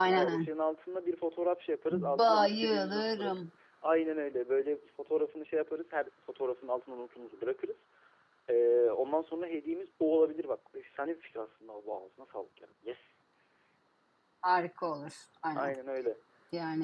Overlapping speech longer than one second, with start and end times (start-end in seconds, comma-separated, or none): 1.9-3.3